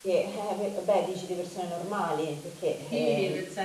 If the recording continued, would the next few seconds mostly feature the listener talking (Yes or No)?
Yes